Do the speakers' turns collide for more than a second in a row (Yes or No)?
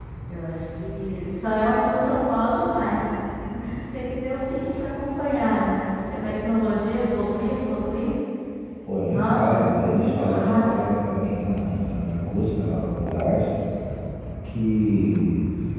Yes